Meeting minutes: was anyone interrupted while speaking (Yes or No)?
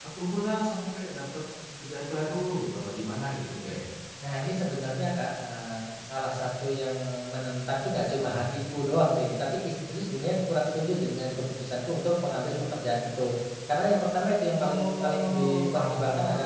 Yes